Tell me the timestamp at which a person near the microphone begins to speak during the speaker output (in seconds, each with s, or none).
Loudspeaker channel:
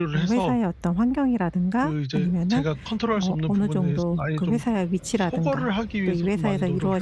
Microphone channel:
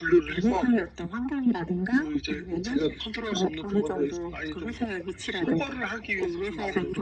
none